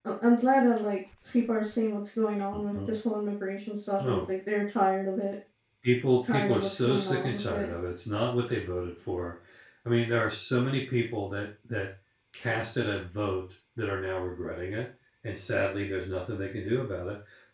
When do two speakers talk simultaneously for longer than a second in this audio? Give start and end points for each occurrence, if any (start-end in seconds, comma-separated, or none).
6.2-7.7